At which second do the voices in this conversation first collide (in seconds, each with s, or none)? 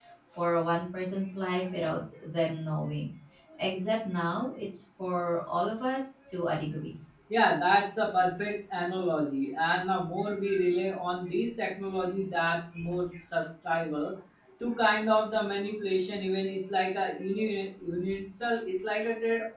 none